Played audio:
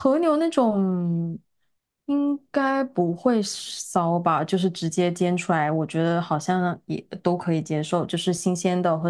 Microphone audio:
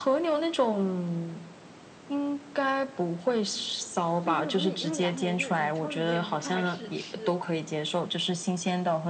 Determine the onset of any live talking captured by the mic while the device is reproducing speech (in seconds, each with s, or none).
4.2 s